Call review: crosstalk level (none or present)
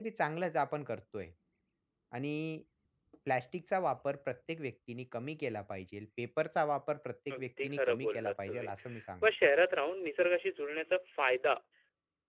present